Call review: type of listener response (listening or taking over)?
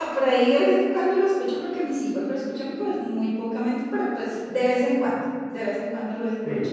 taking over